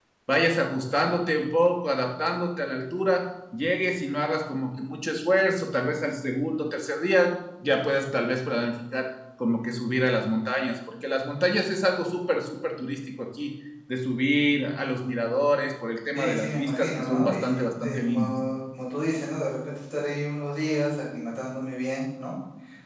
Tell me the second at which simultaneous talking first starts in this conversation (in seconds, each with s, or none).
16.2 s